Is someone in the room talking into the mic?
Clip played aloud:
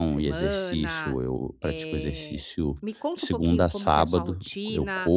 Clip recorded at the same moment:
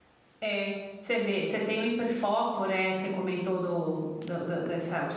Yes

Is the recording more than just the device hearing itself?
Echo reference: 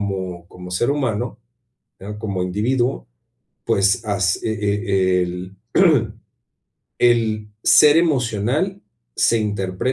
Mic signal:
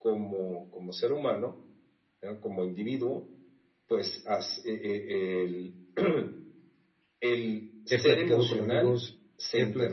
Yes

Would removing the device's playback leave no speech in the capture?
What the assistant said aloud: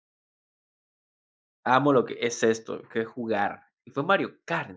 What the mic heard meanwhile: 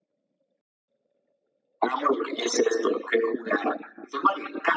Yes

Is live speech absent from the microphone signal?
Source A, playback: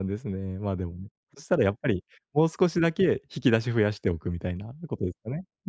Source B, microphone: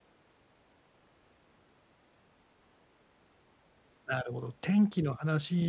No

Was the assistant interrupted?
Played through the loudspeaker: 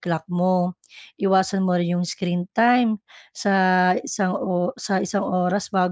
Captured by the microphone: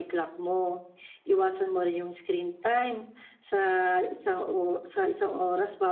No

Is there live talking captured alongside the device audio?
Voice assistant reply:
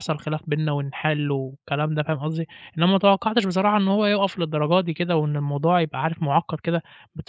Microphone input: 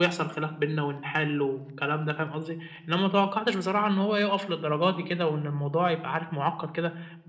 No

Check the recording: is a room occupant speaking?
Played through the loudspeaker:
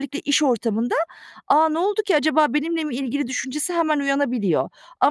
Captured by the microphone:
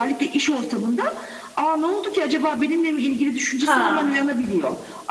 Yes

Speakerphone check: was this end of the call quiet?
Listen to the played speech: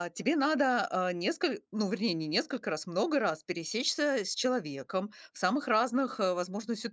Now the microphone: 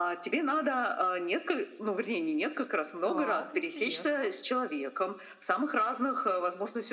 No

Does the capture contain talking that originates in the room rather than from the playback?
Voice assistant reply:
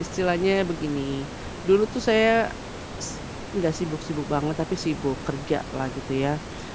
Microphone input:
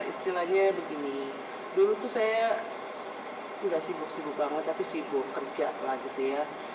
No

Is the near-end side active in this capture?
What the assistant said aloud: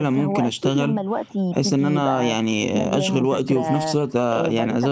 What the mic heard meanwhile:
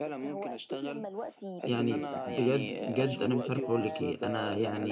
Yes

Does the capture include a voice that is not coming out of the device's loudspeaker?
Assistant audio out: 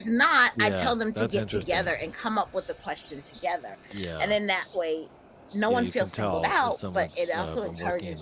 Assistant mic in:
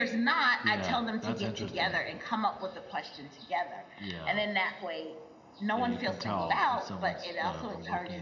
No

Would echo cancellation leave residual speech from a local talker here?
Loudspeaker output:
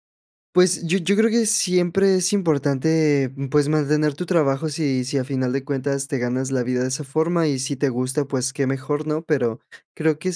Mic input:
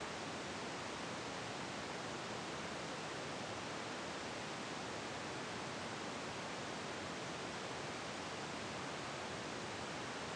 No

